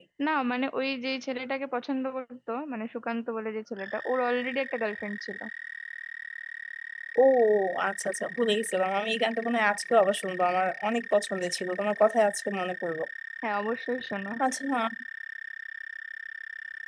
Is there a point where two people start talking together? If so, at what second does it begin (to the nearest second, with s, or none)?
none